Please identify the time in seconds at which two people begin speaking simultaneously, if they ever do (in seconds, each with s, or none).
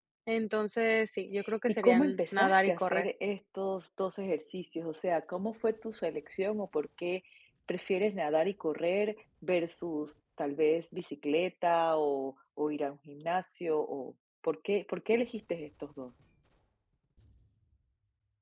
1.7 s